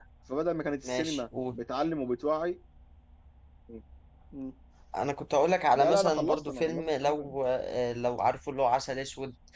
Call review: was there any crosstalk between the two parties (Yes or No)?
Yes